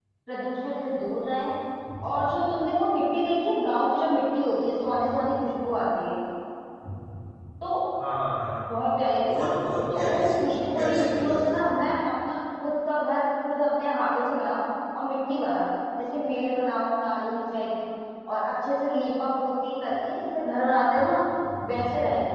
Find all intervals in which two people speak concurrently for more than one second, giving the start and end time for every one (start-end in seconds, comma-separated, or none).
9.9-11.6